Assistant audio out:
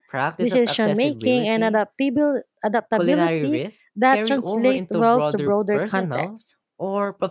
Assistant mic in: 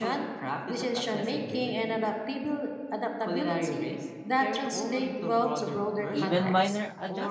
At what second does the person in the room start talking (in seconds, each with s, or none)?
6.1 s